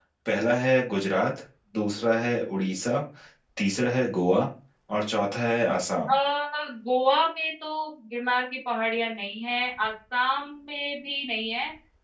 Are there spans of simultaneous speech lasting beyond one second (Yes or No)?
No